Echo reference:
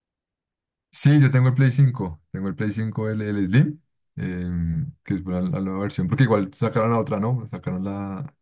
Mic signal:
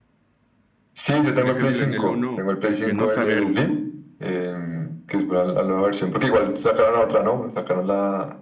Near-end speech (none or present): present